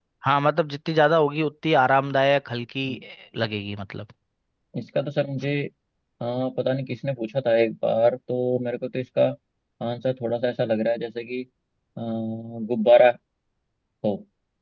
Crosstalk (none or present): none